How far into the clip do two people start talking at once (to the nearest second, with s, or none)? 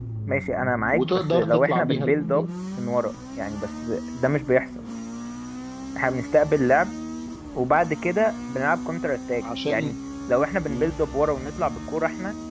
1 s